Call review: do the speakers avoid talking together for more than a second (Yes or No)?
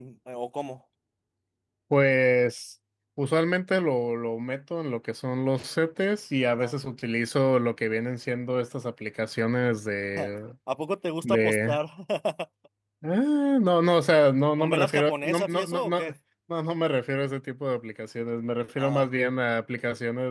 No